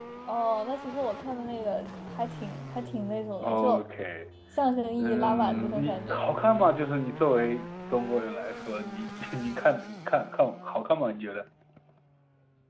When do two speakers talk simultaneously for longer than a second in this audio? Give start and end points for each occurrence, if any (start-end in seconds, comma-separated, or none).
5.0-6.2